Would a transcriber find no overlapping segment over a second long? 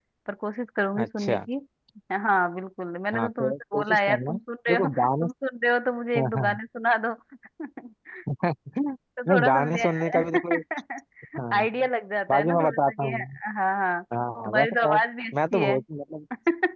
No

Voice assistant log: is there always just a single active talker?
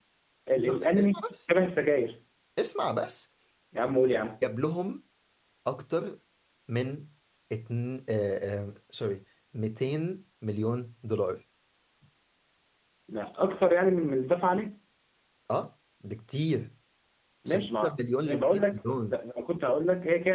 No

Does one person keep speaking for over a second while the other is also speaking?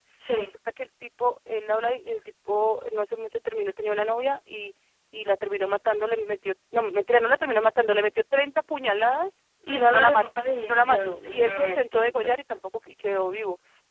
Yes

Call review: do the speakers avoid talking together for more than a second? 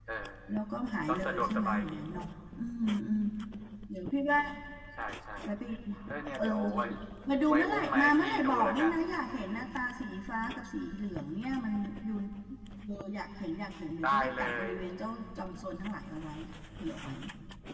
No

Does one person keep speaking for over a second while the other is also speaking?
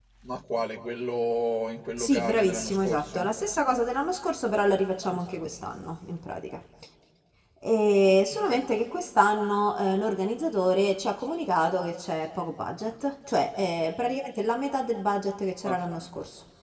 Yes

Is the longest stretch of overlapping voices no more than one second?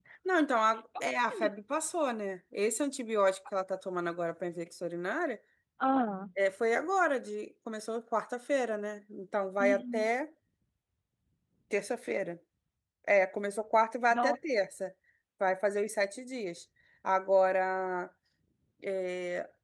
Yes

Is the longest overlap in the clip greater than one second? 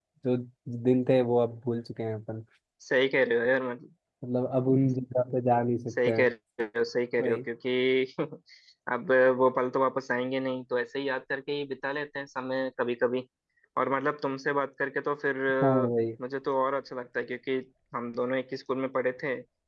No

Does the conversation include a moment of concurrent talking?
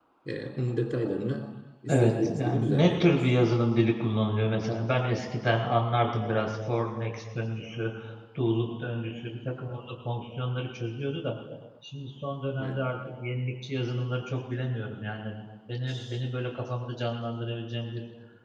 Yes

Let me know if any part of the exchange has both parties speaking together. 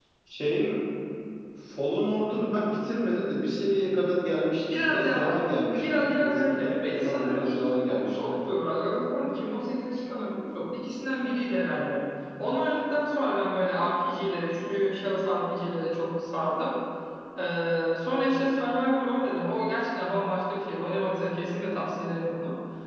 Yes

